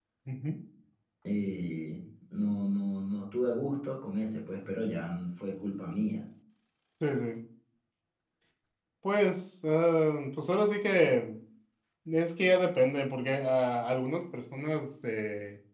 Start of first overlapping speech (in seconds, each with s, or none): none